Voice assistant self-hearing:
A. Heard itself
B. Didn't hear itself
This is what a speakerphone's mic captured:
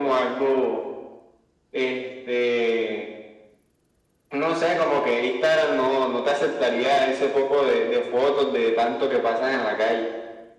A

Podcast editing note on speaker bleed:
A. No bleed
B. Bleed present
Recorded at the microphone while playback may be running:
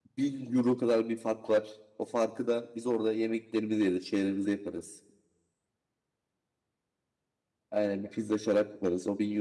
A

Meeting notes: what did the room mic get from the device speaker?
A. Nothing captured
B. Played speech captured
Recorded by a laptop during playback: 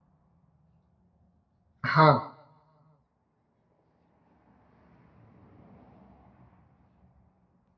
A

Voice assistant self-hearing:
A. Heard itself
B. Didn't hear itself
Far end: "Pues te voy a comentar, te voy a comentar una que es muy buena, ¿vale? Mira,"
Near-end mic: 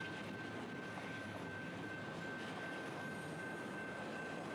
B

